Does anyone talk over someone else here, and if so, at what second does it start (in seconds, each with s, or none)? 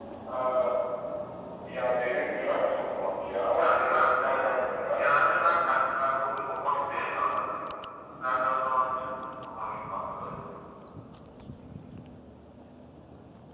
3.6 s